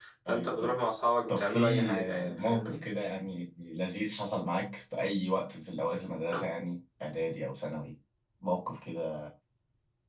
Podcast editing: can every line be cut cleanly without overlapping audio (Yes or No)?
No